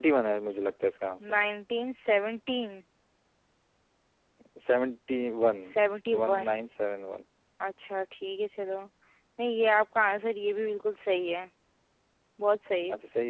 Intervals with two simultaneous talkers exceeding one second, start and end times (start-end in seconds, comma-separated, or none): none